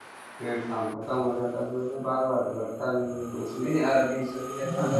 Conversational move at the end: listening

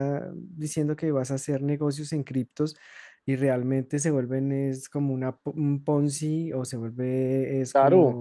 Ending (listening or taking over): taking over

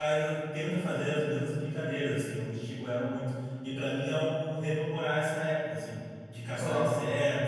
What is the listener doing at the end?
listening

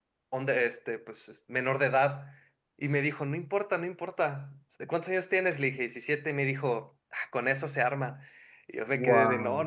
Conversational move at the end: listening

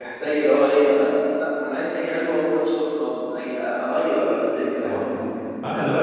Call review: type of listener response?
taking over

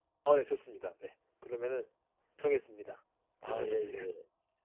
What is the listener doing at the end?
taking over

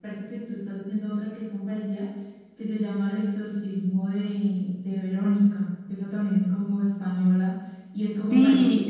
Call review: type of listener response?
taking over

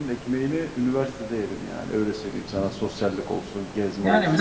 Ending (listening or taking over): taking over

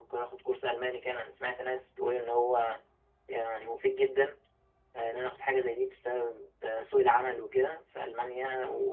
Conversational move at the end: listening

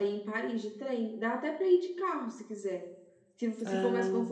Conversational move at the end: listening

